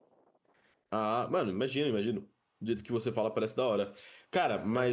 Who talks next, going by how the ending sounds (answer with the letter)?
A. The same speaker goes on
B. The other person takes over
A